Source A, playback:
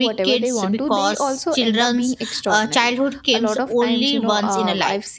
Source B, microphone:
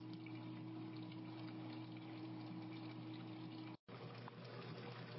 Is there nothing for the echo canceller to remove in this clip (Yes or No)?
Yes